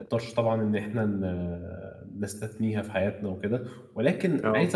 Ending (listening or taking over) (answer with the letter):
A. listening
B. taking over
A